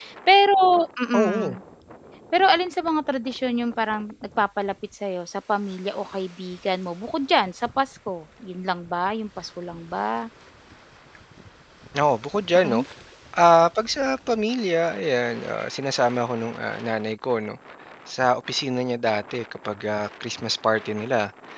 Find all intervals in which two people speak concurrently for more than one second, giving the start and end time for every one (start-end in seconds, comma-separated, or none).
none